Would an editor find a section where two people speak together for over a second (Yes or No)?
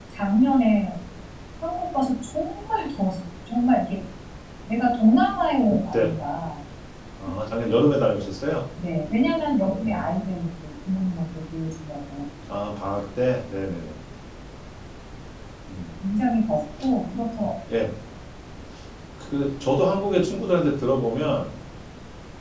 No